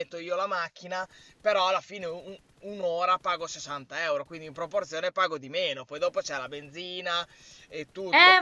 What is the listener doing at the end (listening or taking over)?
taking over